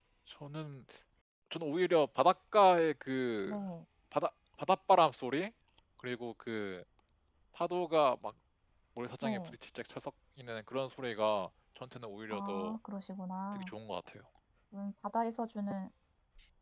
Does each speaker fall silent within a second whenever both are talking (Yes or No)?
Yes